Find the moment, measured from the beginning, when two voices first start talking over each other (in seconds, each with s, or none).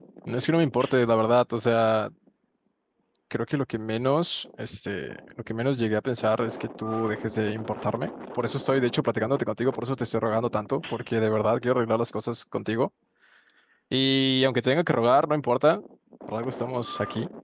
none